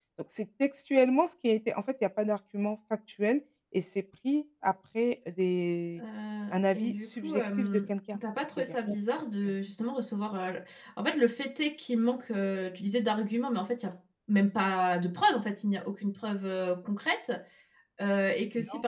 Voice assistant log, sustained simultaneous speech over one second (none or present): present